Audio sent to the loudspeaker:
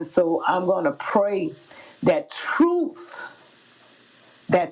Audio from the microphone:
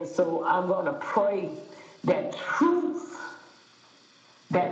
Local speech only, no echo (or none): none